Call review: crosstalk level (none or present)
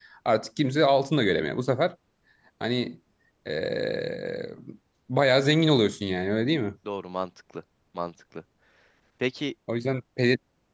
none